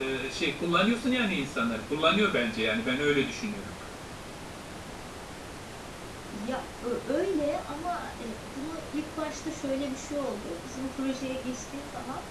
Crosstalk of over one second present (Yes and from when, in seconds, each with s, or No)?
No